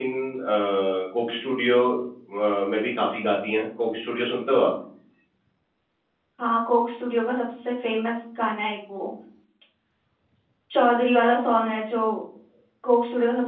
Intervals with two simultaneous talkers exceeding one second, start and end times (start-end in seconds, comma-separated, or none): none